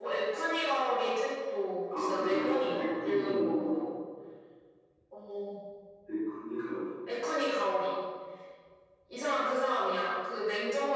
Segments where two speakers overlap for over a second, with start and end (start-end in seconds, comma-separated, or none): 2.0-3.8